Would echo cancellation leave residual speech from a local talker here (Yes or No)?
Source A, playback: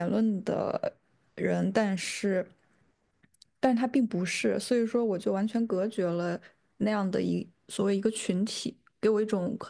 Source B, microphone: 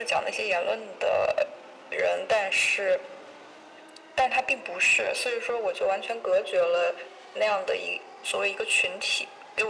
No